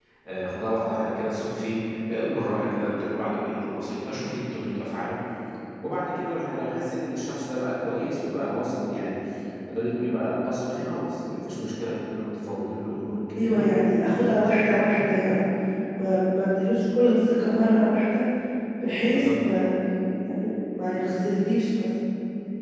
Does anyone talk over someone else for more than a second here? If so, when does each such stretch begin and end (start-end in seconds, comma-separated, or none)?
13.4-15.4